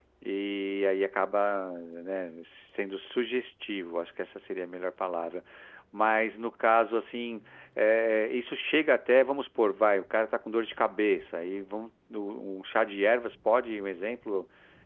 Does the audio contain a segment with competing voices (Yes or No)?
No